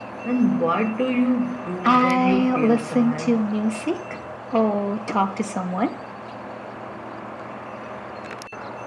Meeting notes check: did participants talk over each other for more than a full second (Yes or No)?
Yes